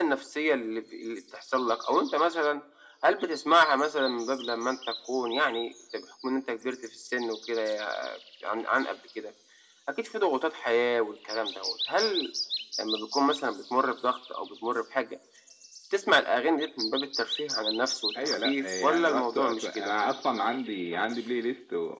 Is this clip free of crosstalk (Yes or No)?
No